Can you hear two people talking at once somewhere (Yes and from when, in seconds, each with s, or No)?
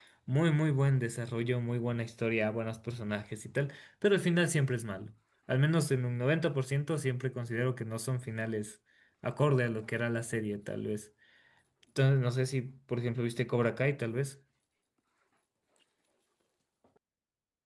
No